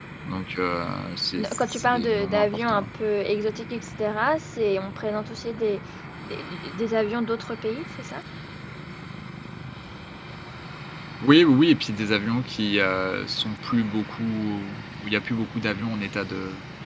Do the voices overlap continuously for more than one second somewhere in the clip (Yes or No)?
Yes